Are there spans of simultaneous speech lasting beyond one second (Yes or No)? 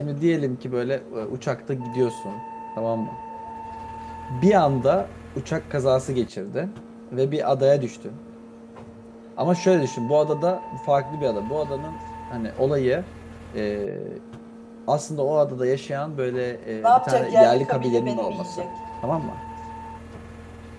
Yes